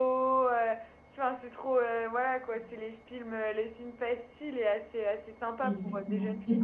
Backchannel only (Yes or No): No